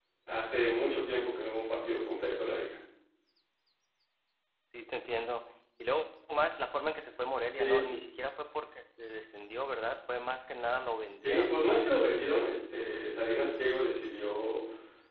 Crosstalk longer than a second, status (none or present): none